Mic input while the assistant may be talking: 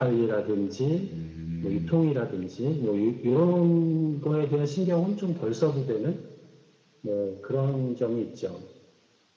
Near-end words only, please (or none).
음.